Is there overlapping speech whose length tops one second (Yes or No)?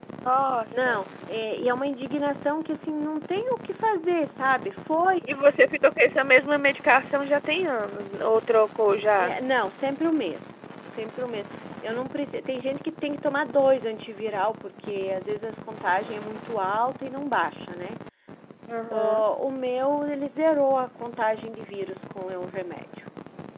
No